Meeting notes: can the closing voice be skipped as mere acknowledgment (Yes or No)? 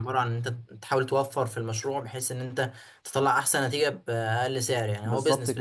No